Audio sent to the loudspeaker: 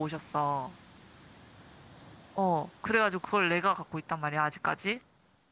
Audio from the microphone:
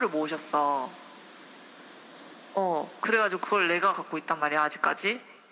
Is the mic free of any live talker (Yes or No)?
Yes